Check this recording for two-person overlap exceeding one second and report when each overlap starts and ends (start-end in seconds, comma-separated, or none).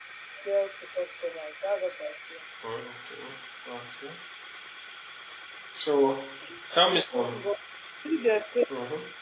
none